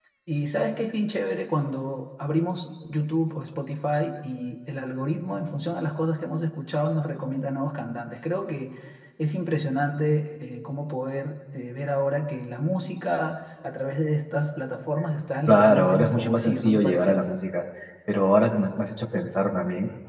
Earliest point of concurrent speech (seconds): 15.5 s

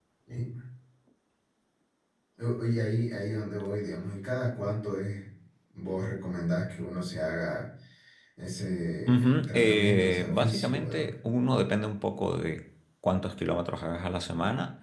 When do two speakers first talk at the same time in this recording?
9.1 s

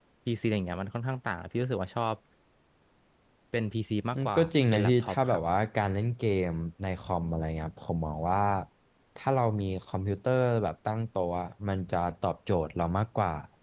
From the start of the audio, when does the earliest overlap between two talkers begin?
4.1 s

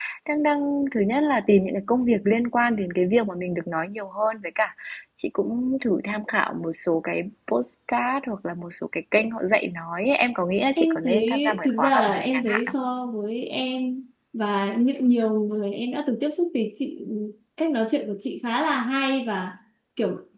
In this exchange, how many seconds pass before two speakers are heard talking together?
10.8 s

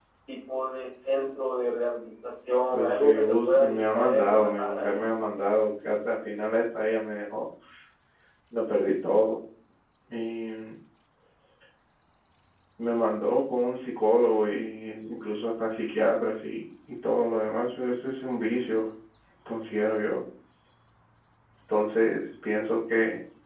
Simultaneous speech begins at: 2.7 s

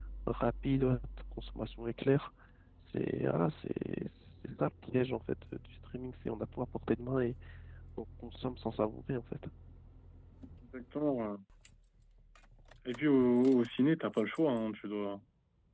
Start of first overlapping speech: none

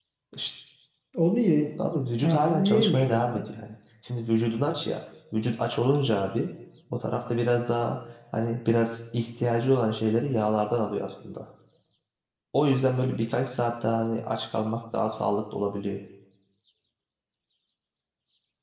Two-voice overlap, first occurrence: 2.2 s

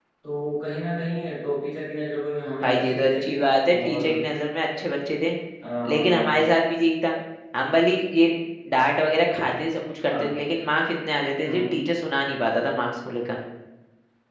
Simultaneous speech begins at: 2.6 s

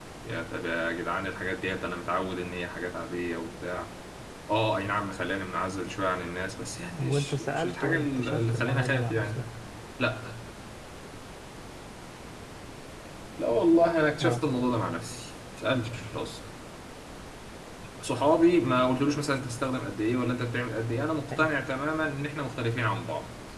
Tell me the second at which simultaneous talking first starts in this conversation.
7.0 s

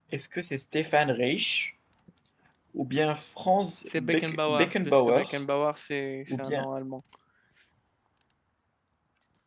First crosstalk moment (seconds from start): 4.0 s

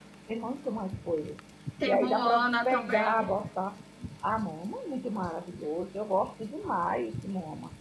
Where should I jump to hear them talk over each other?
1.8 s

